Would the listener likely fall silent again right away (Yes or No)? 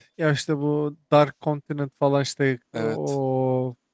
Yes